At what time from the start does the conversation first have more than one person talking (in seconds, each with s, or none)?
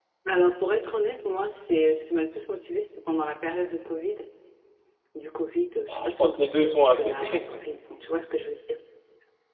5.9 s